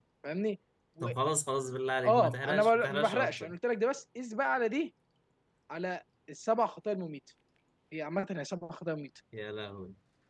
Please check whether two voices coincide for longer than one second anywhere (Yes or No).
Yes